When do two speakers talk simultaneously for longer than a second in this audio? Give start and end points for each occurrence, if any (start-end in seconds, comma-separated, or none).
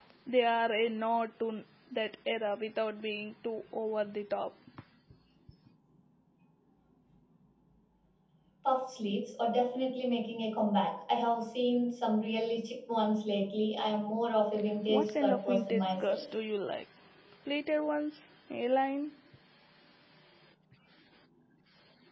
14.9-16.2